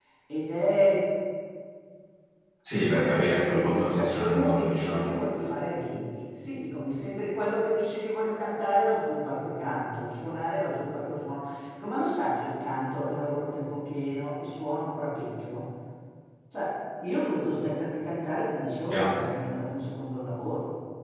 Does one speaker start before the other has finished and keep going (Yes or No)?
Yes